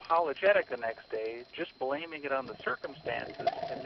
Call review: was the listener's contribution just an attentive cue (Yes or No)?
Yes